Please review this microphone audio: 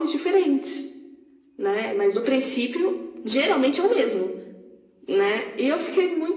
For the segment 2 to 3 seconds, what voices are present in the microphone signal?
echo only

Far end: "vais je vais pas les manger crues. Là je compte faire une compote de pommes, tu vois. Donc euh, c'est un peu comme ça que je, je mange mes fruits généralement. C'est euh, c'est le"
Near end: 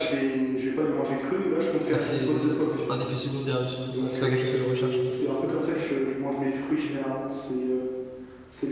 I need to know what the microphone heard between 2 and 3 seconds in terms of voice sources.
both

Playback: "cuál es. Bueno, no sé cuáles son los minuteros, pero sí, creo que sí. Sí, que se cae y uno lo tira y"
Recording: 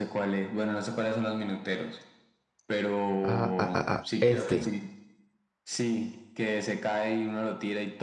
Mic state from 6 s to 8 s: echo only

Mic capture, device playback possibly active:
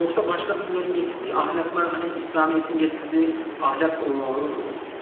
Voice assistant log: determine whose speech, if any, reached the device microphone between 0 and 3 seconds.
echo only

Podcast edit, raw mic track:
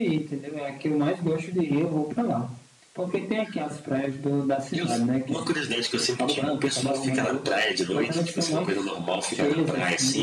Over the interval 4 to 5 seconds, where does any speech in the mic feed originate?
echo only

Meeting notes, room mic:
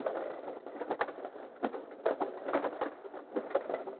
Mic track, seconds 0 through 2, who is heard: neither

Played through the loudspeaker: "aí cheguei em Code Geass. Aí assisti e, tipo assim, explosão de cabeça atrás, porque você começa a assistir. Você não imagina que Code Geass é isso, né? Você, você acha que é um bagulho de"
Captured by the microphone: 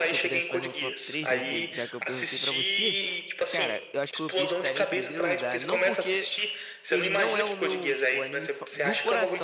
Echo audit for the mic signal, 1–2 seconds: both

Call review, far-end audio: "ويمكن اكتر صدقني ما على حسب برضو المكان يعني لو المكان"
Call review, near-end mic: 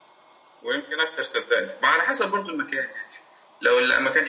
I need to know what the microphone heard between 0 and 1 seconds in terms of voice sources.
echo only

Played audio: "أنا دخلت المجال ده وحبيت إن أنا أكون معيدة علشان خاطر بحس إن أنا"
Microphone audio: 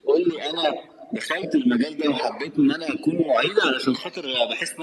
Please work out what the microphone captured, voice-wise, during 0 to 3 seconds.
echo only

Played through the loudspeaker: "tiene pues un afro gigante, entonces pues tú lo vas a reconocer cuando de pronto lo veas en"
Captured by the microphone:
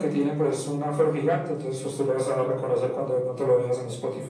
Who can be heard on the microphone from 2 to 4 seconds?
echo only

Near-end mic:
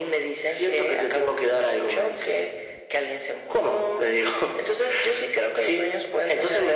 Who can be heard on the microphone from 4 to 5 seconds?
echo only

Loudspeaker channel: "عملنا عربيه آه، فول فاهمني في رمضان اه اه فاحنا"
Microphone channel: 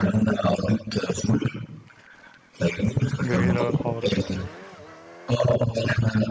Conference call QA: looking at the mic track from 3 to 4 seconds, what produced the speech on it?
both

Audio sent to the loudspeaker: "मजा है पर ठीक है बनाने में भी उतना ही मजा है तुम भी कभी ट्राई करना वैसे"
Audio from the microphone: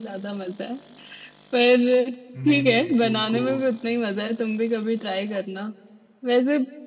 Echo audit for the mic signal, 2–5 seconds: both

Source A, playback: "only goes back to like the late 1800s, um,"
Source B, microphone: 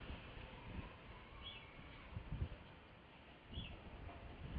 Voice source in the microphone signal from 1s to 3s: neither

